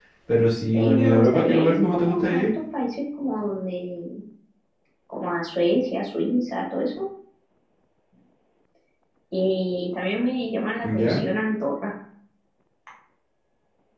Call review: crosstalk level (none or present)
present